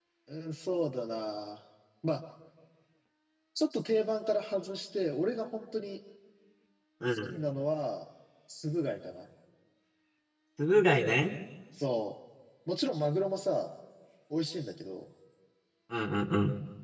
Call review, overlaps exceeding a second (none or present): none